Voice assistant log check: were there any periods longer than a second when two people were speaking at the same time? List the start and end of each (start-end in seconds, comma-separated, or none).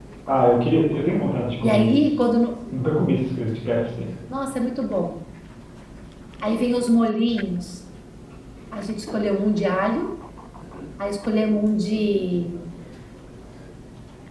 none